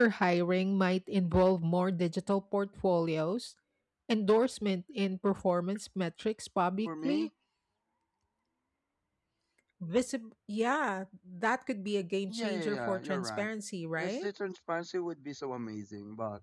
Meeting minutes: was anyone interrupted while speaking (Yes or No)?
Yes